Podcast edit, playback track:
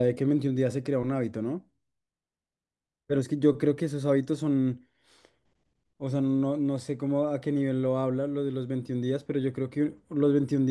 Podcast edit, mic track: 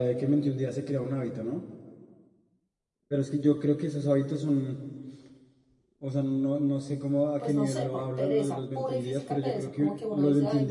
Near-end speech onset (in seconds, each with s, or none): 7.4 s